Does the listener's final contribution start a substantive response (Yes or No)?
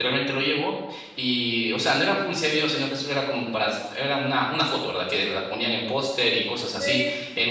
No